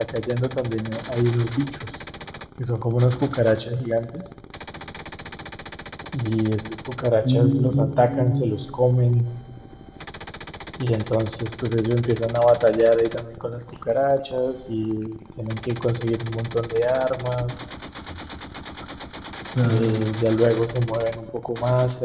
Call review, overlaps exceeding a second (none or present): present